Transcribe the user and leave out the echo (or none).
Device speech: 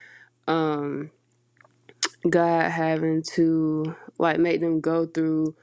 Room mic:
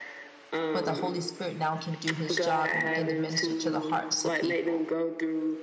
where the Holy Spirit now can do his job and begin to minister to the hearts of people